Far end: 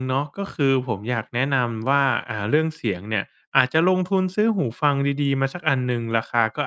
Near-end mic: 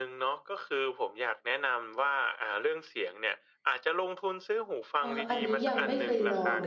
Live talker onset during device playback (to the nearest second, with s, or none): 5 s